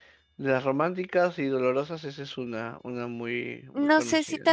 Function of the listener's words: taking over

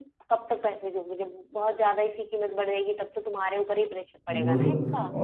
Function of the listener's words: taking over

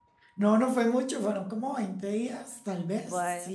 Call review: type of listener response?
listening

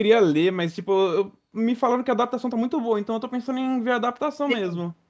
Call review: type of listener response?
taking over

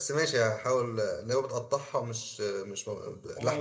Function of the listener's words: taking over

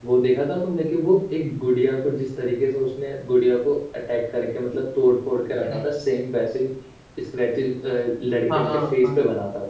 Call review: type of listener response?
taking over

